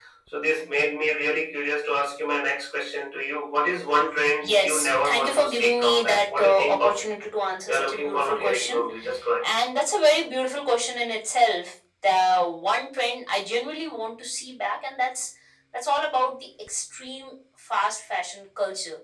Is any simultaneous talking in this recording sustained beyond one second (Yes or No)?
Yes